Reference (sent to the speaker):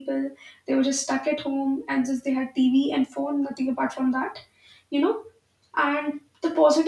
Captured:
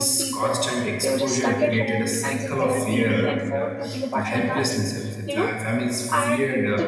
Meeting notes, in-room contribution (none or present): present